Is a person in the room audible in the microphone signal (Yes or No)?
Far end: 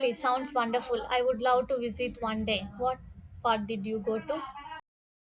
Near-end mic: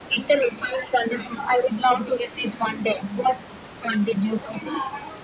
No